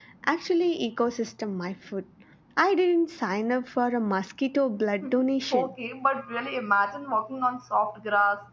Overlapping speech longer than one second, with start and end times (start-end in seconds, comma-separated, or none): none